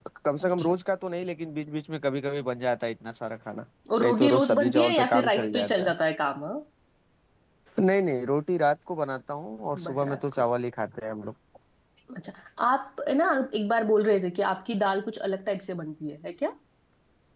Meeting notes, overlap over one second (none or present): present